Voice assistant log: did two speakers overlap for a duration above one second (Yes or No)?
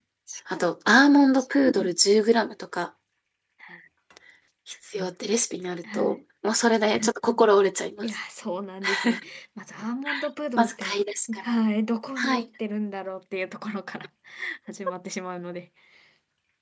No